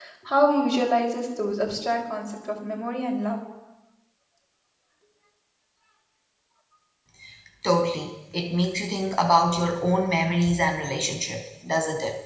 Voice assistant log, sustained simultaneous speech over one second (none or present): none